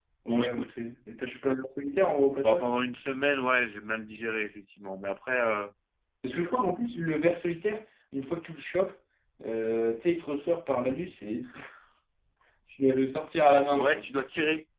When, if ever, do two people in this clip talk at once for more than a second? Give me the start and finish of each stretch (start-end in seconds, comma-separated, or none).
none